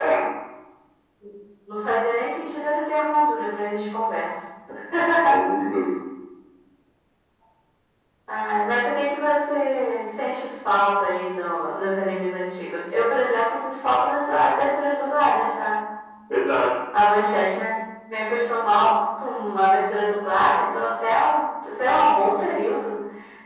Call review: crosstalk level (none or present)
none